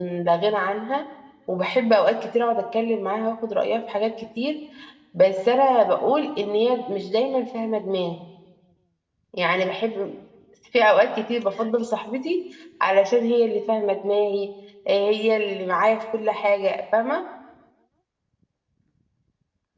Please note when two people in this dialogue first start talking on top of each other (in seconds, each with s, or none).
none